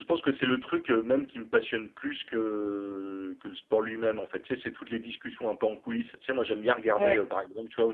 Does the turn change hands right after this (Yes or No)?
No